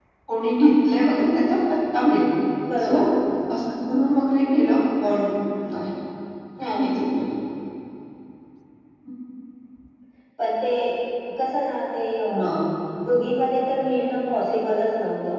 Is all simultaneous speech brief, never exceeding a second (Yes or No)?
Yes